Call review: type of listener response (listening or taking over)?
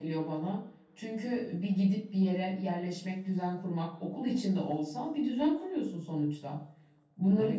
listening